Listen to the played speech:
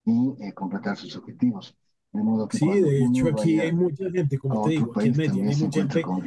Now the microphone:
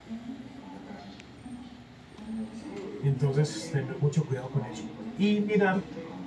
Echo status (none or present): present